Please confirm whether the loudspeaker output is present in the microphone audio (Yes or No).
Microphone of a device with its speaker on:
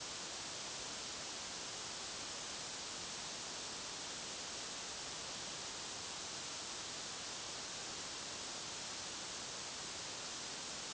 No